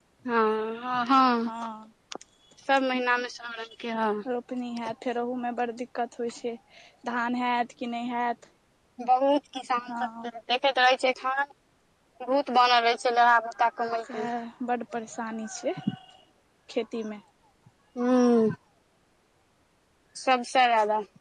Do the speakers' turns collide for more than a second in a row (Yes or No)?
No